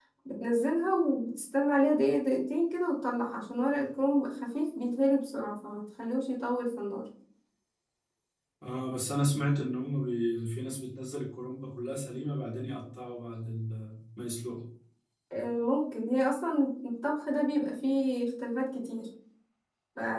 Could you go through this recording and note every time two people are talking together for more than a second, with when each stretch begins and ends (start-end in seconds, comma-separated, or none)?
none